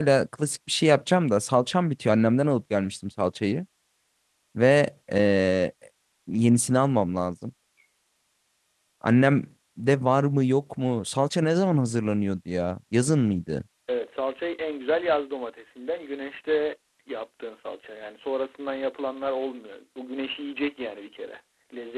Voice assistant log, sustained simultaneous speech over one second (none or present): none